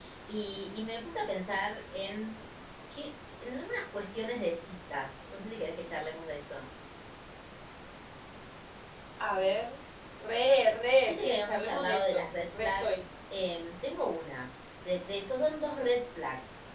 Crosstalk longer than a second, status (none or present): present